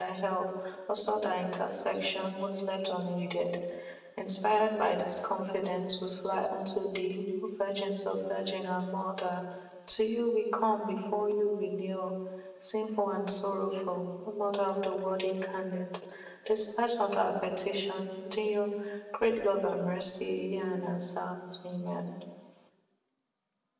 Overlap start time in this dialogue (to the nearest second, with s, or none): none